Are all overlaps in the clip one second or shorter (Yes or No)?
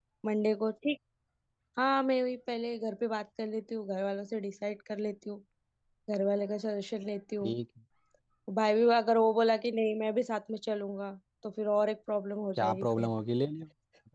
Yes